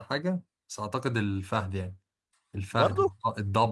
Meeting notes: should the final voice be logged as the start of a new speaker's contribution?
No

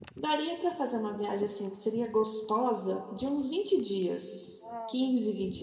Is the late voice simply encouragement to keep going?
No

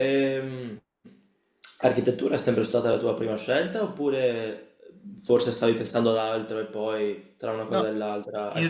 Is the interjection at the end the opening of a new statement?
Yes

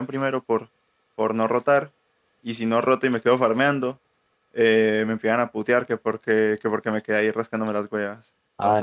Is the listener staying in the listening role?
No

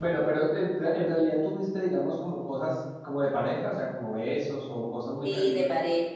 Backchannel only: No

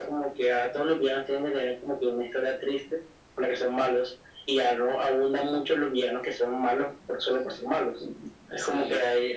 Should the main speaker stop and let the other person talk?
No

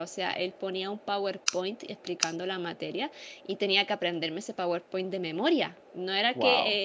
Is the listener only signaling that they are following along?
Yes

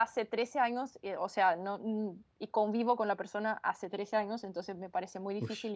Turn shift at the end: No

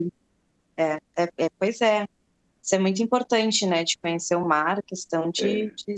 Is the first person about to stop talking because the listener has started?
No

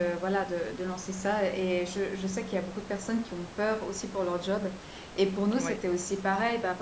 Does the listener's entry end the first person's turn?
No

